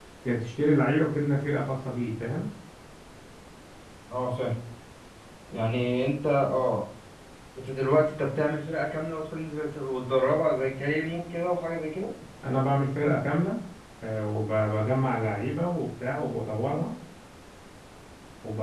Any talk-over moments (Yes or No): No